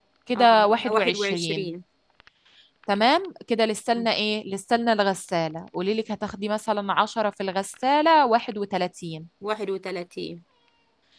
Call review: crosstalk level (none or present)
present